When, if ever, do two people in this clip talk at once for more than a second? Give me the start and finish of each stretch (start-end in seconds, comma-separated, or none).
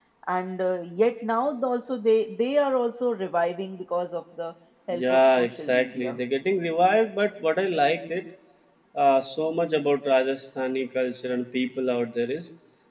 4.9-6.2